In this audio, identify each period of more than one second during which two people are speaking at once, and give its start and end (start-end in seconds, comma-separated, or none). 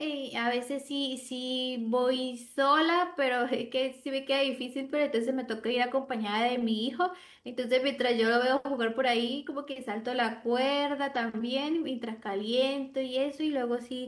none